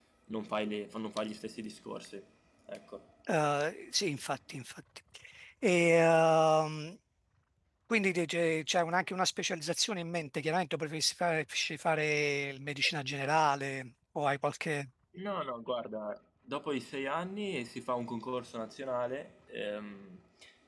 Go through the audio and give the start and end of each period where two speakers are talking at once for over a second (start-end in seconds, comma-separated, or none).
none